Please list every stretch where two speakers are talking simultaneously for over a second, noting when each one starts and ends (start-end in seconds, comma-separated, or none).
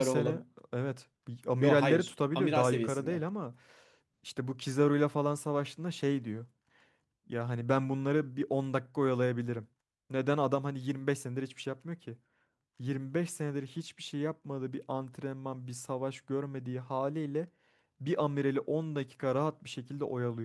1.6-3.2